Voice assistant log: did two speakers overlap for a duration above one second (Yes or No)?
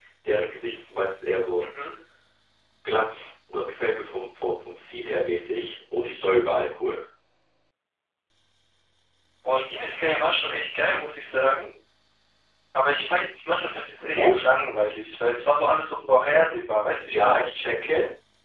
No